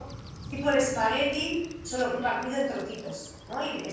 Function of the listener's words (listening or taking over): taking over